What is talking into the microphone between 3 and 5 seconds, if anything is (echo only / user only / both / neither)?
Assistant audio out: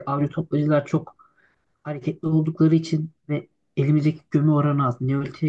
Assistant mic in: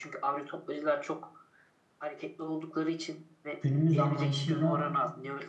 both